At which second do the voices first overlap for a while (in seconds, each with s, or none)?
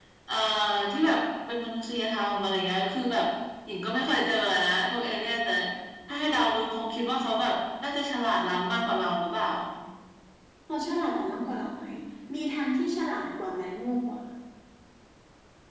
none